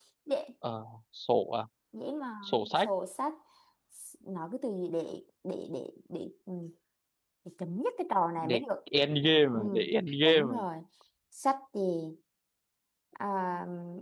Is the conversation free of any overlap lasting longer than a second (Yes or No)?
Yes